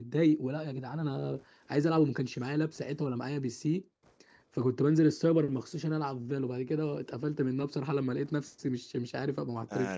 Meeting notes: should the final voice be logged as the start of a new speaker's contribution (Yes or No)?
Yes